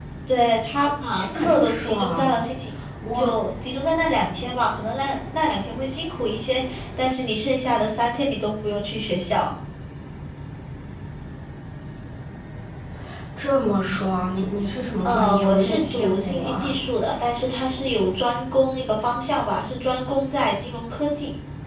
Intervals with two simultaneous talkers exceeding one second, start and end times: 1.1-2.3, 15.1-16.7

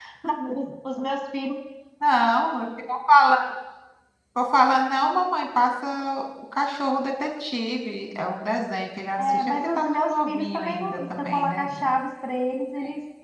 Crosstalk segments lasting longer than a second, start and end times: 9.2-11.7

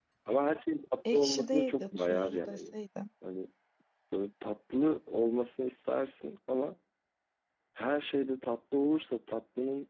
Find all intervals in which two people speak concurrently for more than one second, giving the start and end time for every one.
1.1-2.6

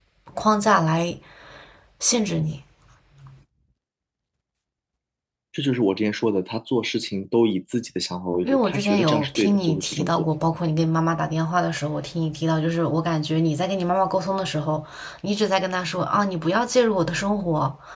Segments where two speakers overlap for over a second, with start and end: 8.4-10.3

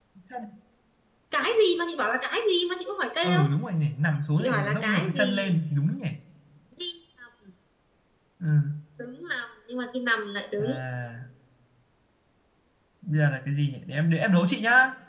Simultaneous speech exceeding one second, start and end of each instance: 4.4-5.6

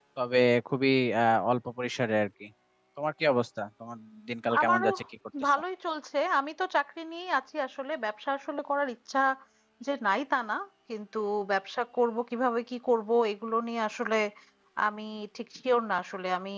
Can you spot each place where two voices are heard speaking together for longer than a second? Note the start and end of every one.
none

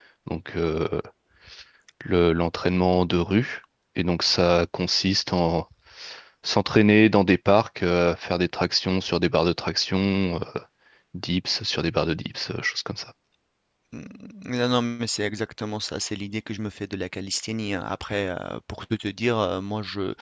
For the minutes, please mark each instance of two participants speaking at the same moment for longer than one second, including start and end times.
none

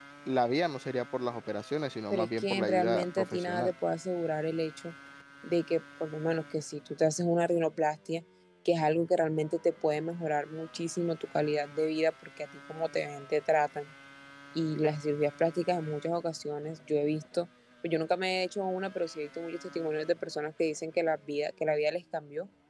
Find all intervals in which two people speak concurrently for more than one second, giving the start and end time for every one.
2.1-3.7

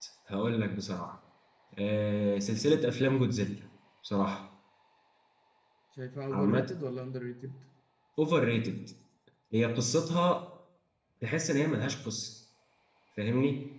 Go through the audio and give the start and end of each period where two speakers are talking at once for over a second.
none

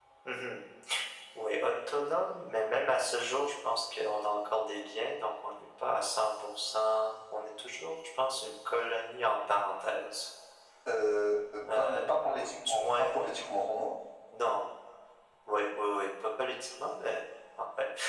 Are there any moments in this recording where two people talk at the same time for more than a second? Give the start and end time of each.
11.8-13.1

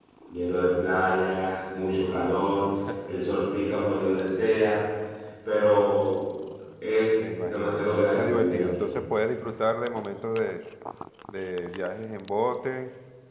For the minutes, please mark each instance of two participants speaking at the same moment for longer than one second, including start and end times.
7.2-8.9

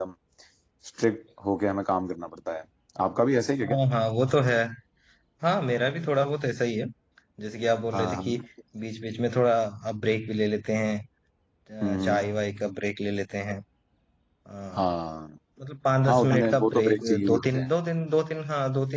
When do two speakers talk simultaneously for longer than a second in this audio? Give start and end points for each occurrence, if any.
16.1-17.7

